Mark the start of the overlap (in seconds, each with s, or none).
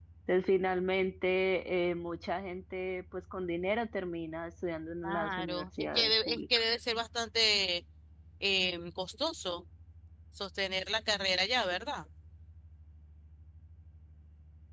5.0 s